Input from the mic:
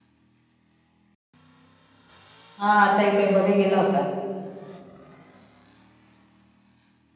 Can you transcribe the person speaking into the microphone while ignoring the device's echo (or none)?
हा आता येतोय मध्ये गेला होता